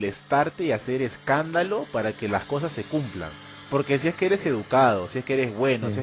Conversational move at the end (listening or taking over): listening